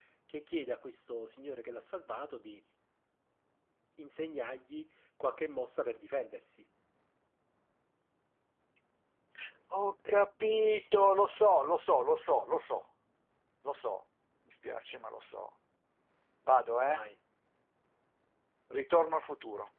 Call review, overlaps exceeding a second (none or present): none